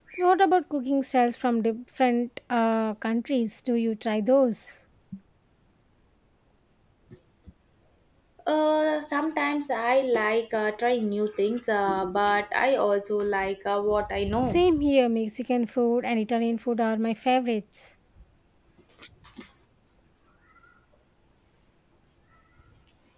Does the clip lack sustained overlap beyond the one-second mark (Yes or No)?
Yes